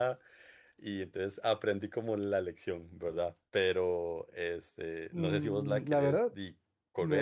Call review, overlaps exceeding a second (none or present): present